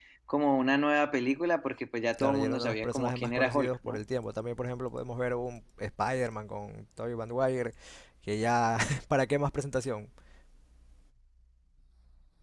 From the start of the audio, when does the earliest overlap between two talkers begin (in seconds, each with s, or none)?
2.2 s